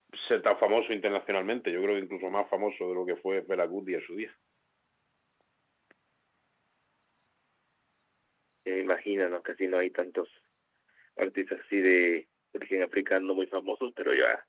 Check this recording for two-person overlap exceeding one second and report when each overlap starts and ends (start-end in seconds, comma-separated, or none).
none